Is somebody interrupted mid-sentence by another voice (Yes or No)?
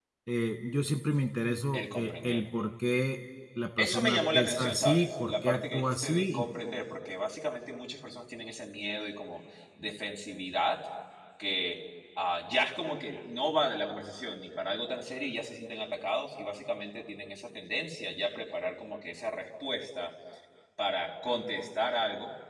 Yes